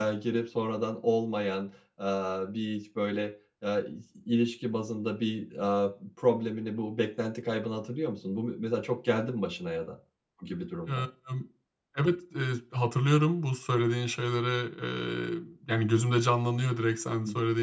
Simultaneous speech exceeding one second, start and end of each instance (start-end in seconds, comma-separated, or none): none